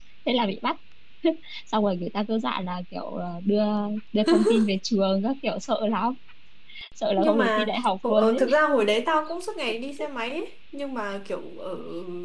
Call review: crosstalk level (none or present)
present